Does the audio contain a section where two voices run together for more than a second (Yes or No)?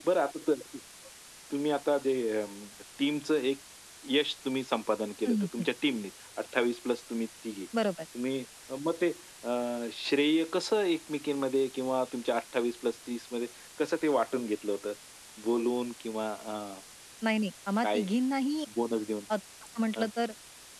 No